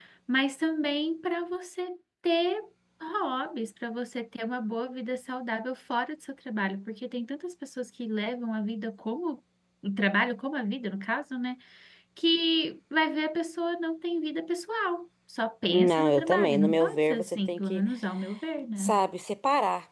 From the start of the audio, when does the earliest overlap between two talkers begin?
16 s

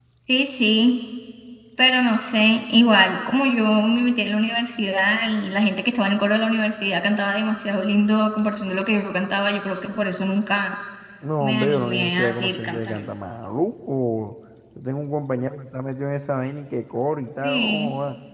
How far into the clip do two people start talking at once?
11 s

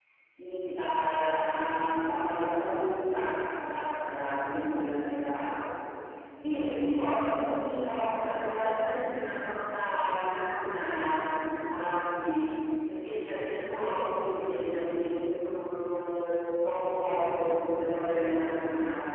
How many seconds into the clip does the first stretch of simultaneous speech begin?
none

